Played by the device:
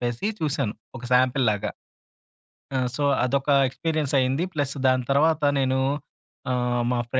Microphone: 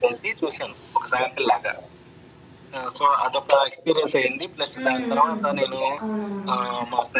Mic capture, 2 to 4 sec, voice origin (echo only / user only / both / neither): echo only